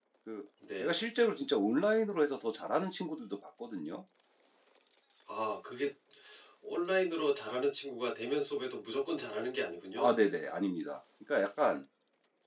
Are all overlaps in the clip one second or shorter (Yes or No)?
Yes